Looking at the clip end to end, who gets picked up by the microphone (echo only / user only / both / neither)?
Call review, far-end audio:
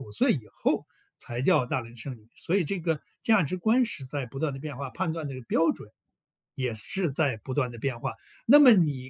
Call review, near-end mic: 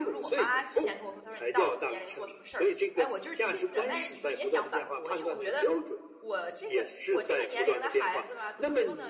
both